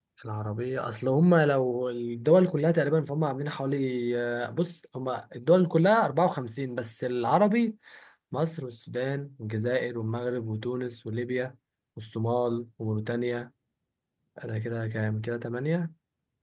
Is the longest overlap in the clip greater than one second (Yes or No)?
No